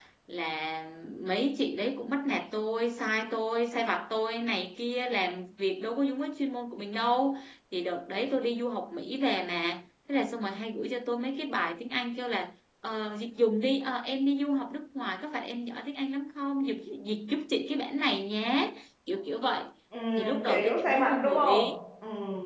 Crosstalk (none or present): present